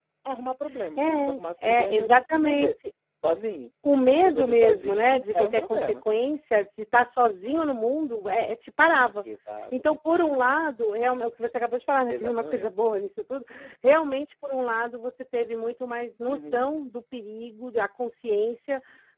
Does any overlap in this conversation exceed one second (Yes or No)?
Yes